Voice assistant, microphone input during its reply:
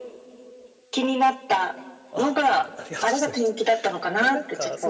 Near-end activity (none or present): present